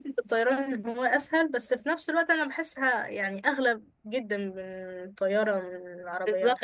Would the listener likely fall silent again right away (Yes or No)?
No